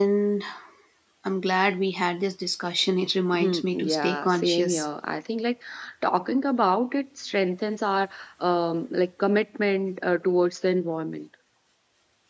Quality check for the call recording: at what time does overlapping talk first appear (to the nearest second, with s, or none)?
3 s